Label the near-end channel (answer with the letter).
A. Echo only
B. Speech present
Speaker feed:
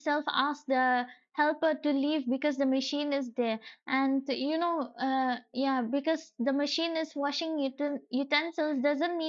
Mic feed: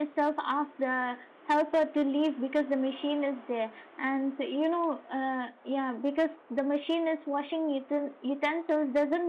A